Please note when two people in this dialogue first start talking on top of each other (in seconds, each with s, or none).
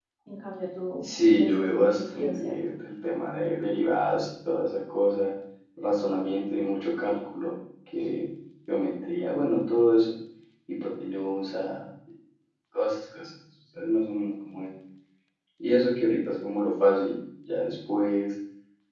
1.0 s